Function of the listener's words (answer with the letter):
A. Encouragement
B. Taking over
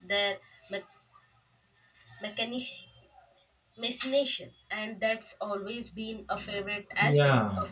B